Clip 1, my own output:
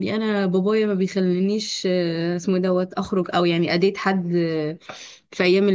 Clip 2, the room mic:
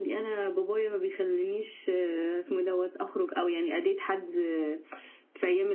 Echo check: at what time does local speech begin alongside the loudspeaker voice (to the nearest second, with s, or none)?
none